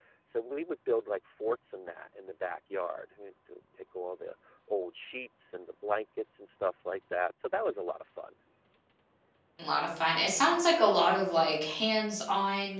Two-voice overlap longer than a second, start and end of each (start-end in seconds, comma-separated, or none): none